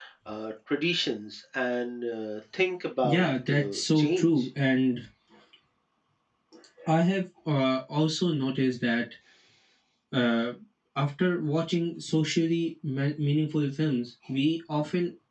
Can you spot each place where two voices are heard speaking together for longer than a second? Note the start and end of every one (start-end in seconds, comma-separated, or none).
3.0-4.5